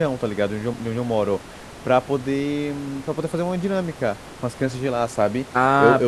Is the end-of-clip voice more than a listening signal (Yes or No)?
Yes